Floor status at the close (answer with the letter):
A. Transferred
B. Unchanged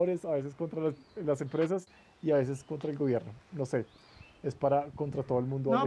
A